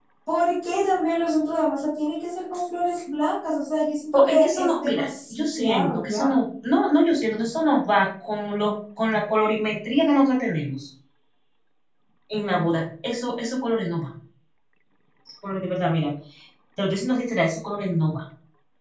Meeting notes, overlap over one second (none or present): present